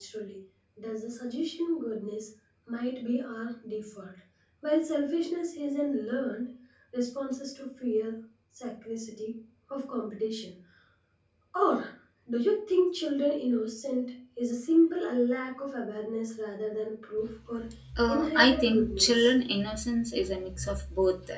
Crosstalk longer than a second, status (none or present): present